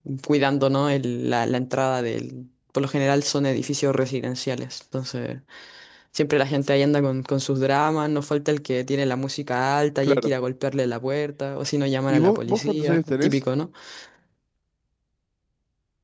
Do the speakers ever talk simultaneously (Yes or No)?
Yes